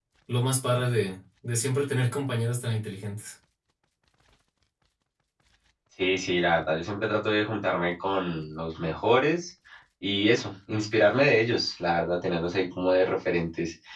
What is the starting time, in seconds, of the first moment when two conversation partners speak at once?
none

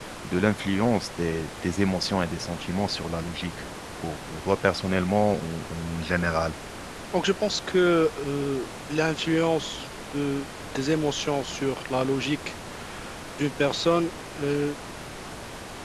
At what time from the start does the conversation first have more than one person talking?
none

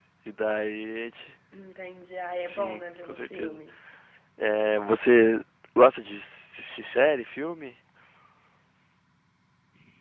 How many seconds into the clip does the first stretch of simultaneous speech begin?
2.4 s

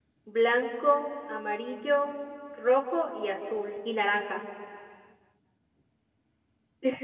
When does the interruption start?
none

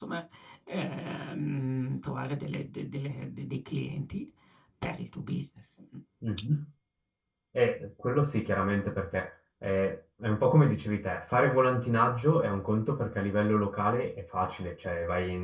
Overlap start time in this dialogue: none

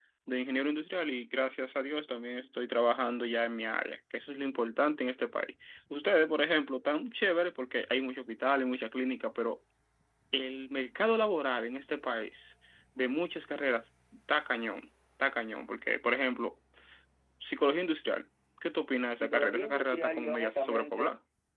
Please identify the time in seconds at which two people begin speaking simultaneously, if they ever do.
19.1 s

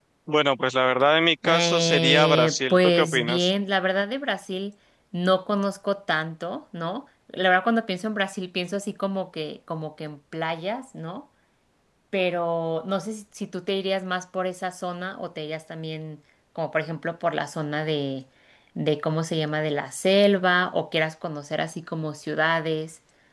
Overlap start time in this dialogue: 1.4 s

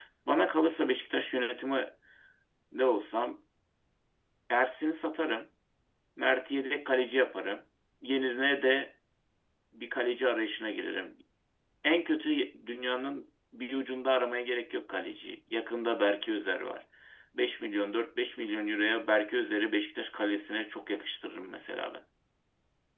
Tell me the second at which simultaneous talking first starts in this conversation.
none

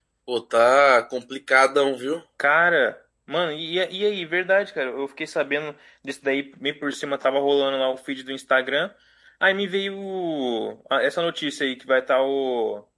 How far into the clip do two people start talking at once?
none

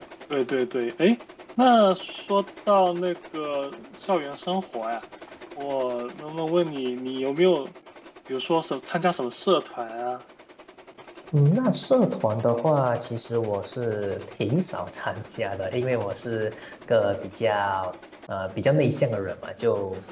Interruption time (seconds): none

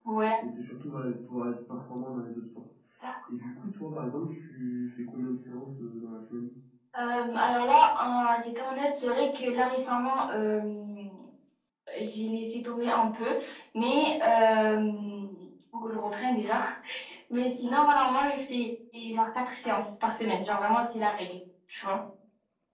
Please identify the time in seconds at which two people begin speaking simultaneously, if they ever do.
none

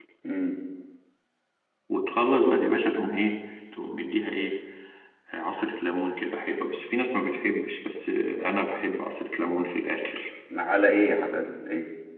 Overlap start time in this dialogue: none

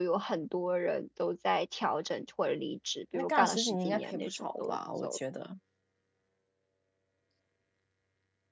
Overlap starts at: 3.1 s

